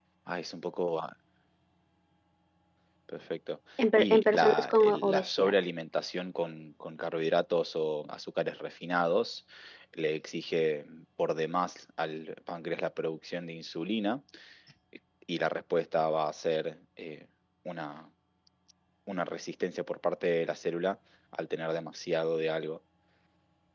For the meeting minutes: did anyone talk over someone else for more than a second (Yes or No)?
Yes